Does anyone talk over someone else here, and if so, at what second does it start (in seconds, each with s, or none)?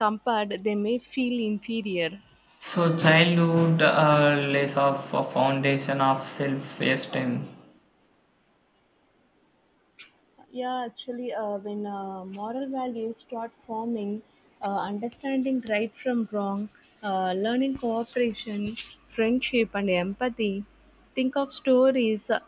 none